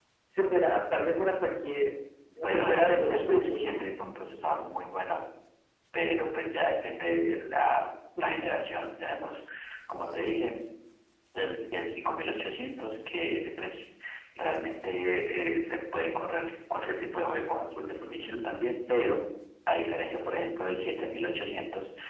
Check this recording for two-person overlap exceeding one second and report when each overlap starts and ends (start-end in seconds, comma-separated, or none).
2.4-3.8